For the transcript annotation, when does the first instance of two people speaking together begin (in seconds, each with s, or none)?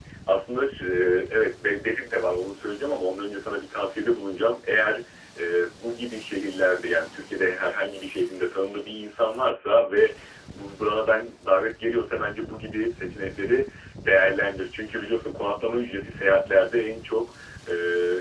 none